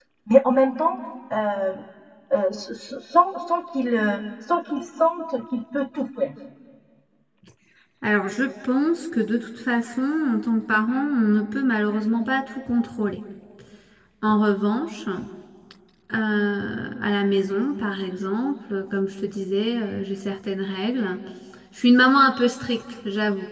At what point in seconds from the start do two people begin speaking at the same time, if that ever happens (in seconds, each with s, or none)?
none